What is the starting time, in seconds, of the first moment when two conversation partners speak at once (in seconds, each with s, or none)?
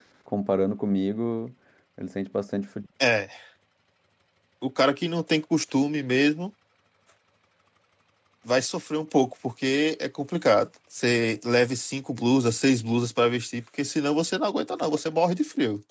none